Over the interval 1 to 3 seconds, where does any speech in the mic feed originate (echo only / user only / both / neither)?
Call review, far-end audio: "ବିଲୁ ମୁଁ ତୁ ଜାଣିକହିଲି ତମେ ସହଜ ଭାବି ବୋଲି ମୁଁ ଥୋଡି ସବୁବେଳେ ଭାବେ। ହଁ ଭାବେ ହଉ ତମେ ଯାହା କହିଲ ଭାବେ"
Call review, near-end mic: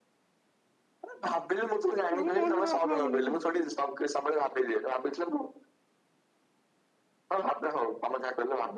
both